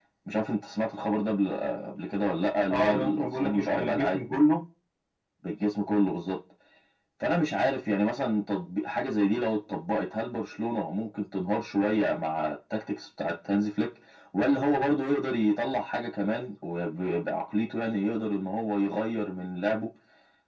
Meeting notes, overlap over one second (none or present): present